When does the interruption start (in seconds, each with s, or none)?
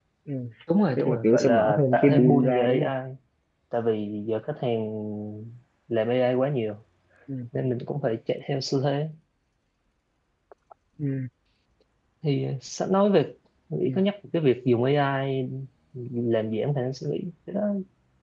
1.0 s